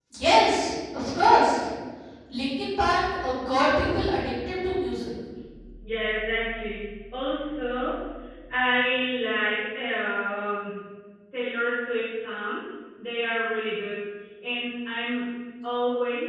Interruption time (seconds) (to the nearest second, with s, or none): none